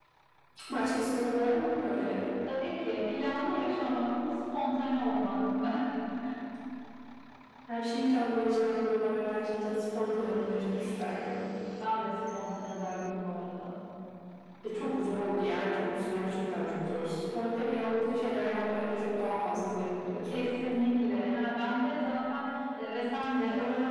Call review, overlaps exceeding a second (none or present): none